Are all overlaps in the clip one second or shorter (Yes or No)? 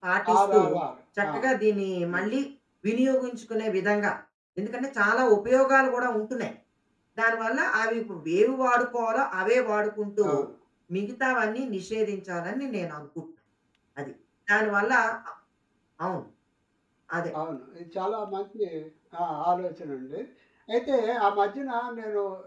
Yes